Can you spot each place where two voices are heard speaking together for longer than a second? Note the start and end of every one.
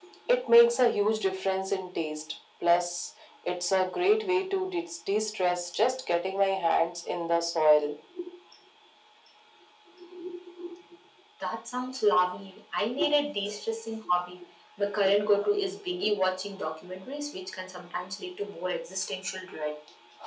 none

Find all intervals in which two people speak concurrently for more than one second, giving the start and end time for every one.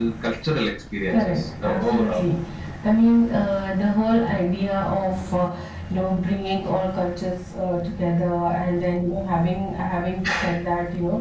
1.1-2.3

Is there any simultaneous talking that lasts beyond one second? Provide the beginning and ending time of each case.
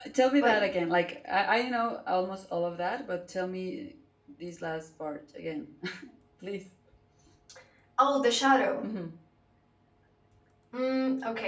none

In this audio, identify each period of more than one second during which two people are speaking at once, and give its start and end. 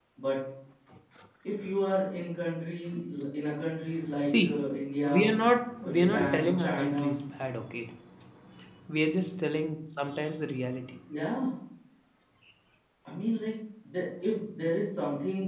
5.8-7.0

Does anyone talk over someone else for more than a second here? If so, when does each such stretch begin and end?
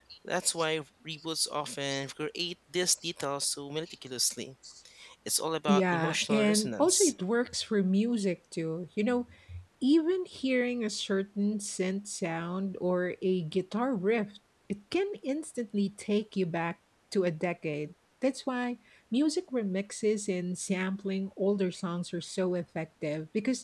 5.7-7.1

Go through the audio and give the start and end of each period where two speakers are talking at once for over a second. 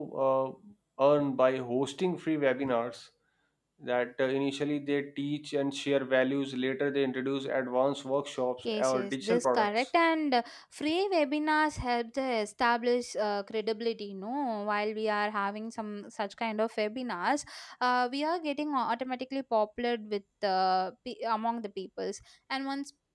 8.6-9.9

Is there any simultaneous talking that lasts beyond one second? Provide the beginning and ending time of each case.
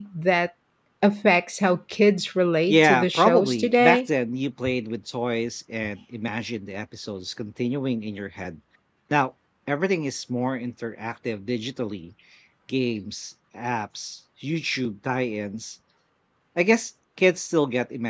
2.7-4.0

